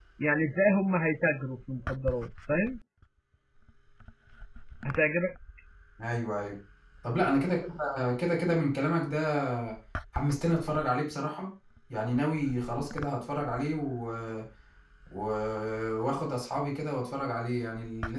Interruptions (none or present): none